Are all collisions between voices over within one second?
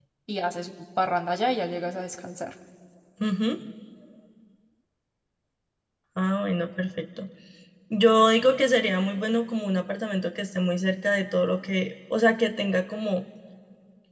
Yes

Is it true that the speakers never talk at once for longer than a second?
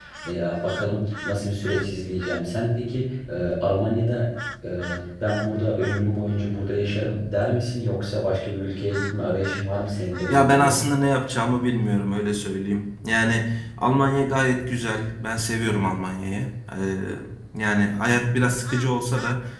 Yes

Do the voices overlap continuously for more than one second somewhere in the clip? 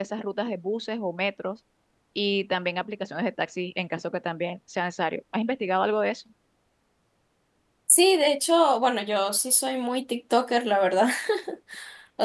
No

